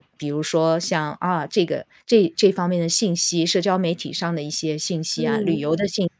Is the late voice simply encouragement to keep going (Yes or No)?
Yes